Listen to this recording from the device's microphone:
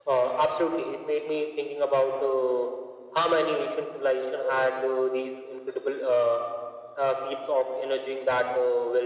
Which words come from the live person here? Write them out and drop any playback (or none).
none